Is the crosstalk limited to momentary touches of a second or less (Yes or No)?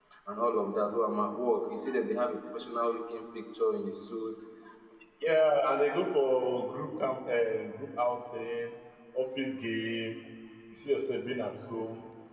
Yes